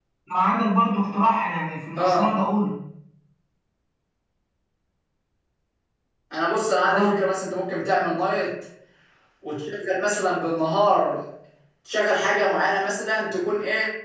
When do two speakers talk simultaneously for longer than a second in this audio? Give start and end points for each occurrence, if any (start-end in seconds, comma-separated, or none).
none